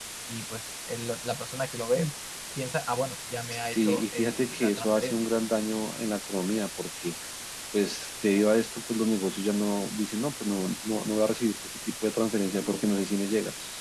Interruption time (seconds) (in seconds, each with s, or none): 3.7 s